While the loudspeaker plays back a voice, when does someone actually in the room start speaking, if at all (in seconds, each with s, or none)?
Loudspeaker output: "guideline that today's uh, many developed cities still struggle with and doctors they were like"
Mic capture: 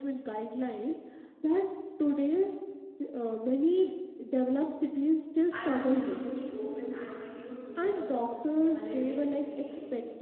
5.5 s